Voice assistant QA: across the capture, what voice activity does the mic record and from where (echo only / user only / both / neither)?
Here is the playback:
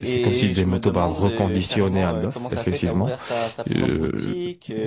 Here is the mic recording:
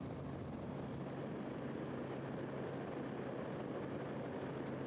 neither